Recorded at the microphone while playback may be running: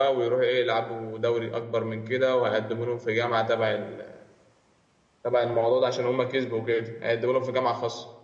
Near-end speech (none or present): present